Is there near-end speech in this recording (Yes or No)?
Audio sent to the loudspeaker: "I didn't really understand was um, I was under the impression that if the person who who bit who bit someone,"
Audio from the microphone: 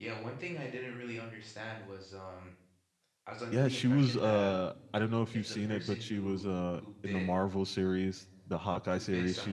Yes